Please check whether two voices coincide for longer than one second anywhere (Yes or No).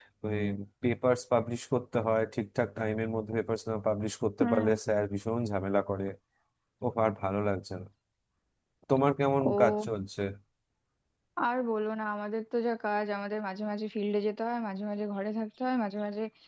No